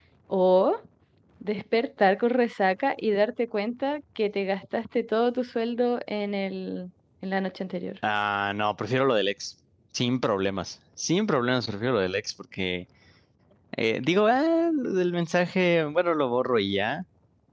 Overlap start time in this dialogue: none

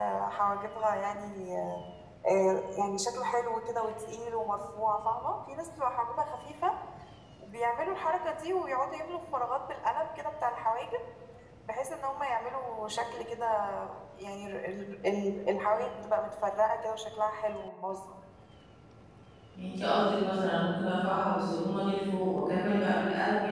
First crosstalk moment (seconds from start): none

